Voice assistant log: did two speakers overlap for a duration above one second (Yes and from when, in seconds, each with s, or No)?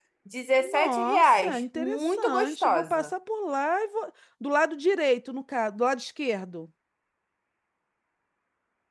Yes, from 0.6 s